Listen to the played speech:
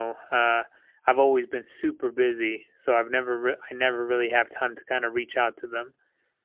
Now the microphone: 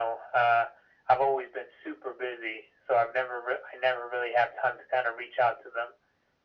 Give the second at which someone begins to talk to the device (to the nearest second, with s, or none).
none